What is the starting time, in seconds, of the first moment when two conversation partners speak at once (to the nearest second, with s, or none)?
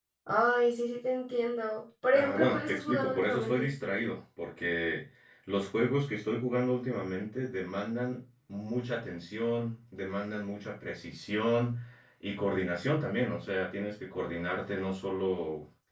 2 s